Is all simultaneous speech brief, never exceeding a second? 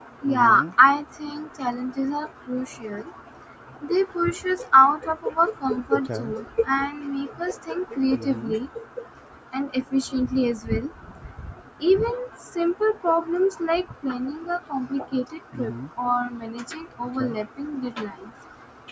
Yes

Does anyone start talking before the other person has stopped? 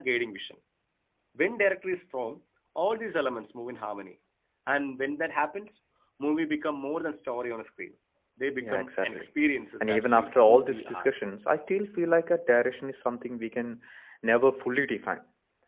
Yes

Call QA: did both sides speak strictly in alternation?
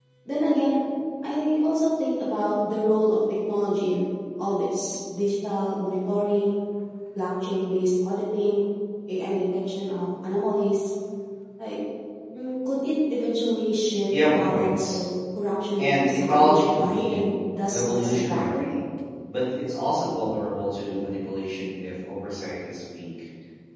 No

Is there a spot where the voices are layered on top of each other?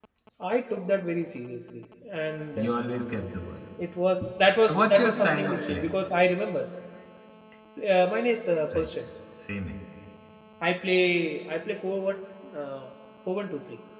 Yes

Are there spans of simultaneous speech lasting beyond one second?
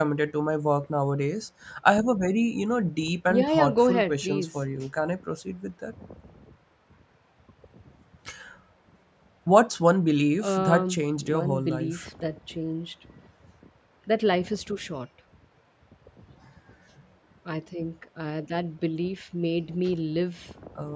Yes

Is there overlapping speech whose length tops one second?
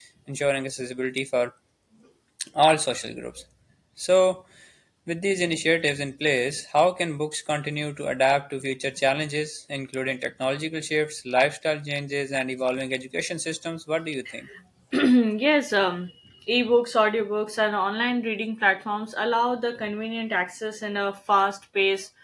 No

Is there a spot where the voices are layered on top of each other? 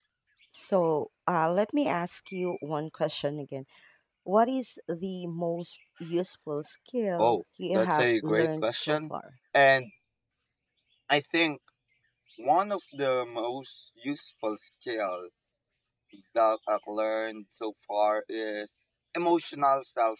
Yes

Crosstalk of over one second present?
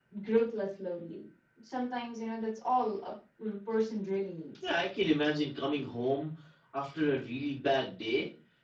No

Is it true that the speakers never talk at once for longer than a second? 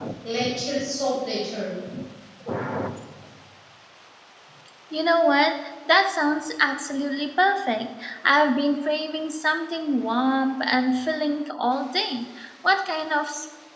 Yes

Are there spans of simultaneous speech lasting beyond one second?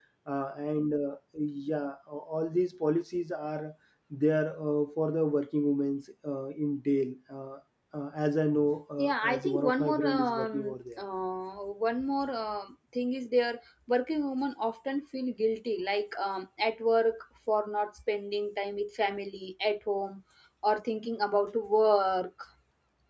Yes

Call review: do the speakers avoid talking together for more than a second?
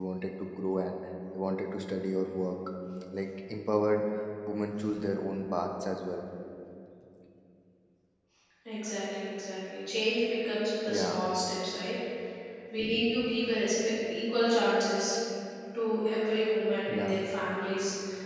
Yes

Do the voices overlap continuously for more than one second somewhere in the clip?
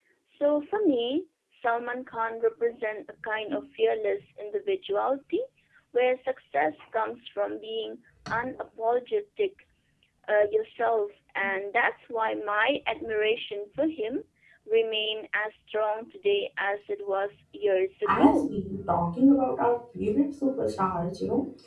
No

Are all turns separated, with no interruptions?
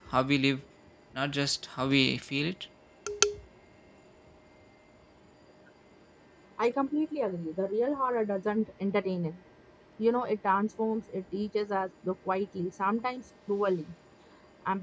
Yes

